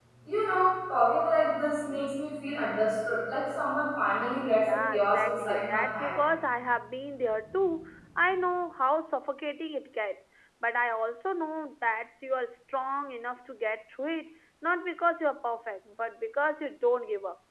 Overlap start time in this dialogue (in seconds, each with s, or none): 4.6 s